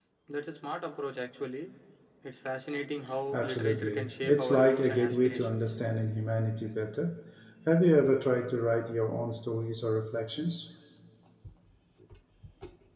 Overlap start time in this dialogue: 3.3 s

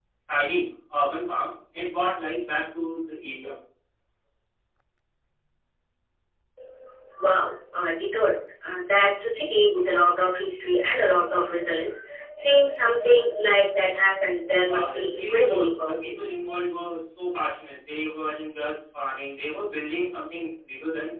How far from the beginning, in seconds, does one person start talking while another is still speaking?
14.7 s

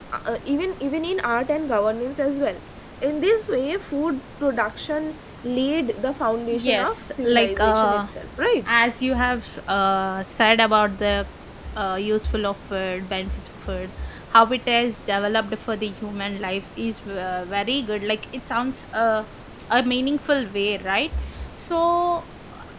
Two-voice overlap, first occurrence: 6.5 s

